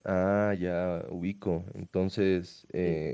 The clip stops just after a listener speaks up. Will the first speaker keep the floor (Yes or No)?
Yes